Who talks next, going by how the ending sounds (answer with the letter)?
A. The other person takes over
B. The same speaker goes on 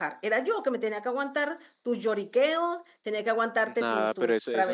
A